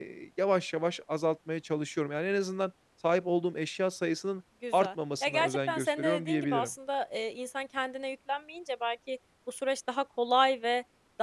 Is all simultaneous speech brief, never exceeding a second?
No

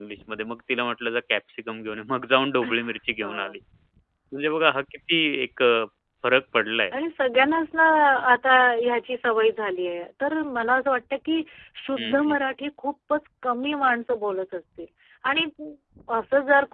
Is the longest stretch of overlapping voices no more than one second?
Yes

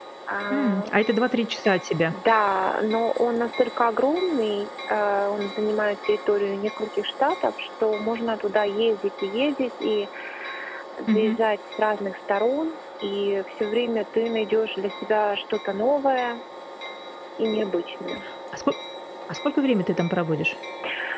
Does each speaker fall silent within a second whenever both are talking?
Yes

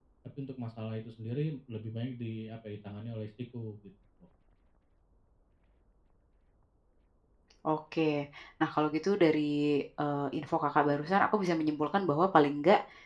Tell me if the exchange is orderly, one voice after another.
Yes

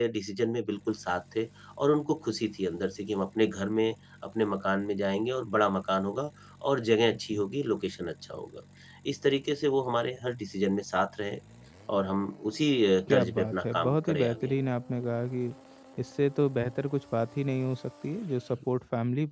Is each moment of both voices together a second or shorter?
No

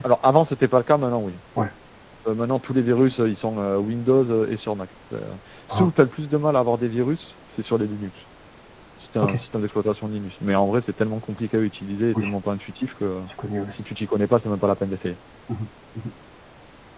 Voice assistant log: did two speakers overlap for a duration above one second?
No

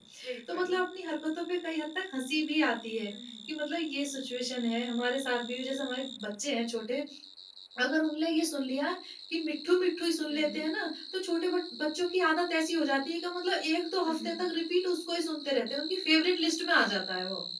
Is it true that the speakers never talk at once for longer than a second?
Yes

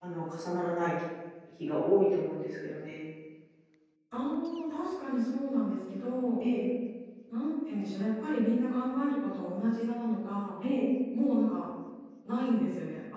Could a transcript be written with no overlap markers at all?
Yes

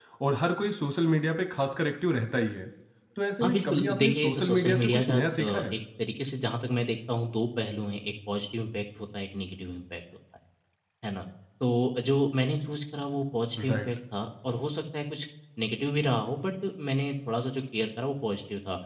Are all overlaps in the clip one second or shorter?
No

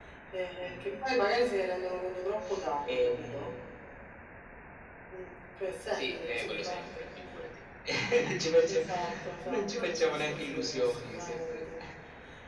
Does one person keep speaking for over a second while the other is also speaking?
Yes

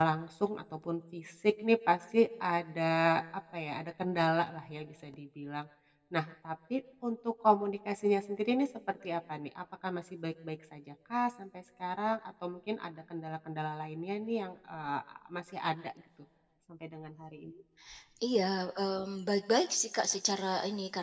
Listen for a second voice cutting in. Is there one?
No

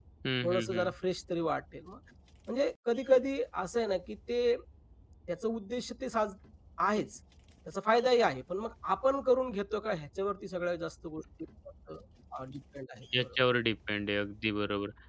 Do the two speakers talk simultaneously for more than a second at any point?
No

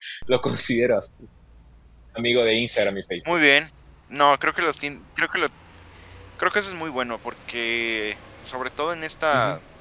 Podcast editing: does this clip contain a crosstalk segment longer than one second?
No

